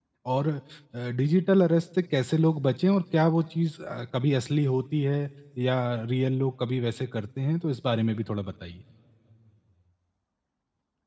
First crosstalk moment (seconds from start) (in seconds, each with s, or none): none